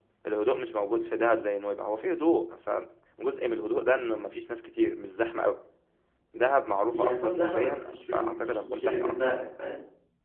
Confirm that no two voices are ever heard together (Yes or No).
No